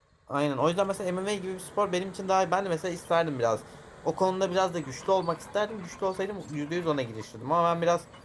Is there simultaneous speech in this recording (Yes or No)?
No